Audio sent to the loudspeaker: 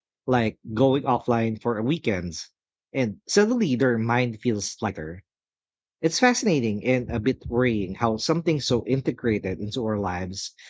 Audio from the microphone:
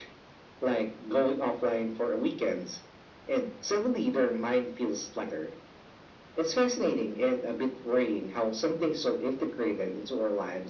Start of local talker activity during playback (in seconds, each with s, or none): none